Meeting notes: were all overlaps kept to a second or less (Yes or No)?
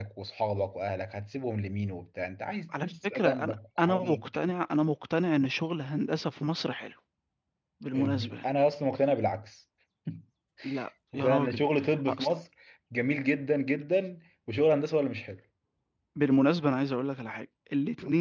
No